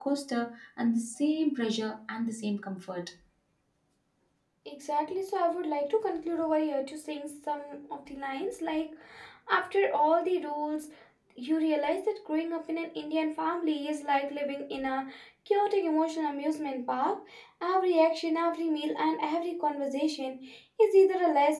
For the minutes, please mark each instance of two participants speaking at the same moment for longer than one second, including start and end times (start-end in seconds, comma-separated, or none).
none